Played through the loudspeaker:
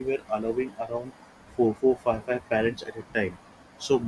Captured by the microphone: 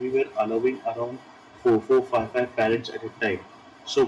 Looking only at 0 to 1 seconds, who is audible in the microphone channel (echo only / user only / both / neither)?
echo only